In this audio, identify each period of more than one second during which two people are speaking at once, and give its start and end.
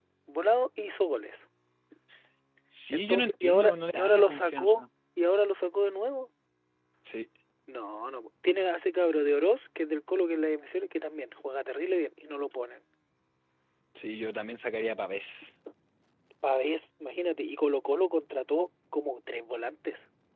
2.9-4.8

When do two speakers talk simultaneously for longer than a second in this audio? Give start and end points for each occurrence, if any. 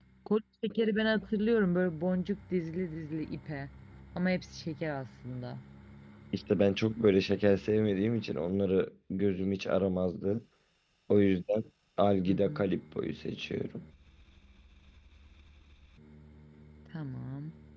none

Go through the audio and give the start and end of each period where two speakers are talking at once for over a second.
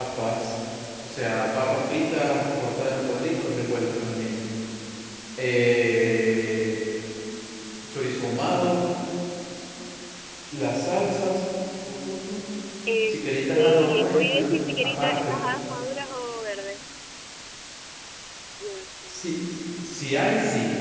13.1-15.4

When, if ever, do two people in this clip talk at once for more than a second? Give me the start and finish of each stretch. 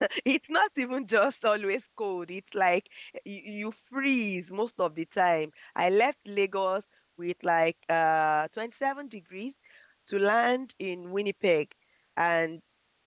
none

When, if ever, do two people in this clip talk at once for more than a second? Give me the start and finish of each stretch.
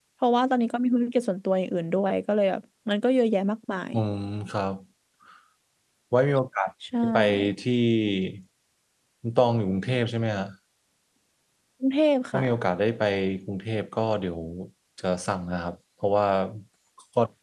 none

